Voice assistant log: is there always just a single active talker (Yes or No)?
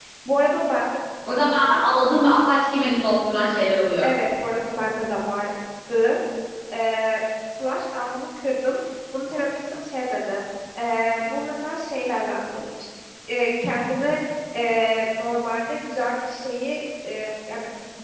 Yes